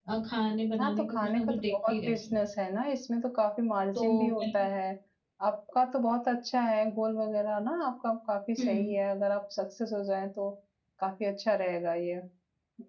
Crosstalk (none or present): present